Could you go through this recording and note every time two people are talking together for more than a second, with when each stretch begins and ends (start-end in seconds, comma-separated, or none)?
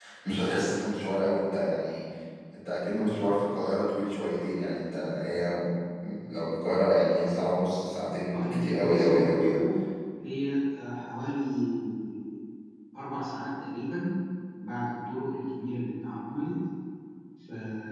8.3-9.6